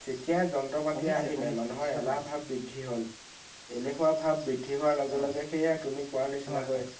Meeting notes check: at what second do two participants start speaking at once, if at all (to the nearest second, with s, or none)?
1 s